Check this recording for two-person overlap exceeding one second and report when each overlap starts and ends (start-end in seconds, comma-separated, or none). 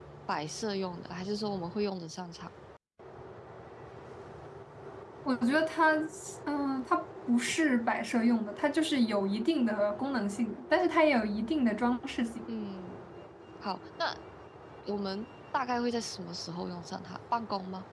none